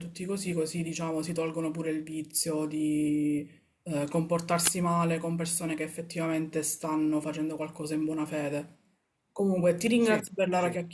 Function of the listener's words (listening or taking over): listening